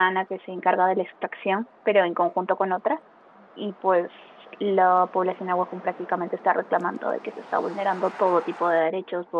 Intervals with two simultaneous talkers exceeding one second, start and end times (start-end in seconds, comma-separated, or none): none